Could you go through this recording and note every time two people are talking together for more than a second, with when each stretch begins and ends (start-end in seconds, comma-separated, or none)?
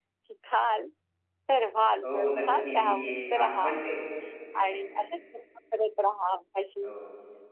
2.0-3.7